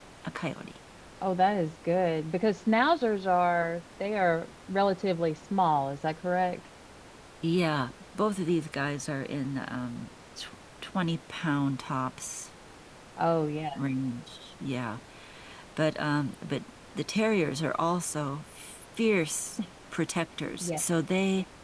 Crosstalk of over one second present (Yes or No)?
No